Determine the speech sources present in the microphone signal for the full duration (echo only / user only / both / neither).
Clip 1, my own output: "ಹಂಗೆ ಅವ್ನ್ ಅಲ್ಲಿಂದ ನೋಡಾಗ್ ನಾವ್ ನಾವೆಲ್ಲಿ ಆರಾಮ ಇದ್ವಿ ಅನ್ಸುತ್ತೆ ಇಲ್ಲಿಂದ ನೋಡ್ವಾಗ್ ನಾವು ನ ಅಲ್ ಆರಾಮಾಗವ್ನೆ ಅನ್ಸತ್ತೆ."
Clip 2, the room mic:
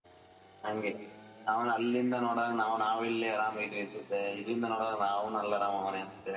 echo only